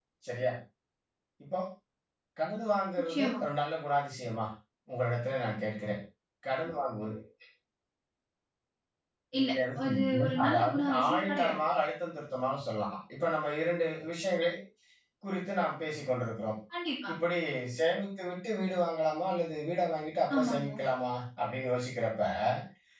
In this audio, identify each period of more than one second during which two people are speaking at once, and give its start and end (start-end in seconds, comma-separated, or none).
9.4-11.7